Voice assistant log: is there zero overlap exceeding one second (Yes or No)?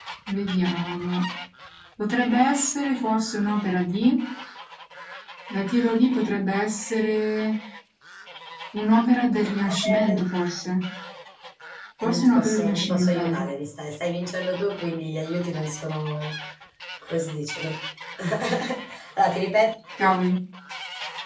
No